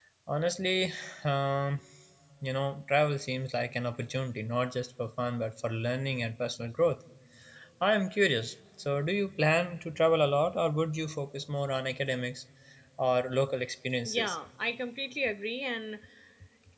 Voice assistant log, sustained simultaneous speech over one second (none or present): none